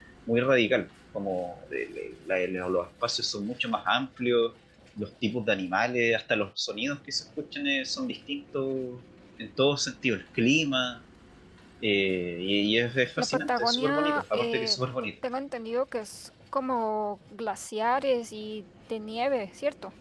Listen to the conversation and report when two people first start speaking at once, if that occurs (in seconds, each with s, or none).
13.2 s